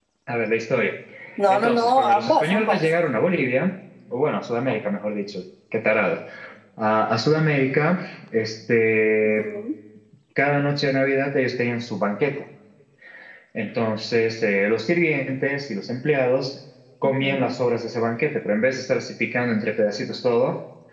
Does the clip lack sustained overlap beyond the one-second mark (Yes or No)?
No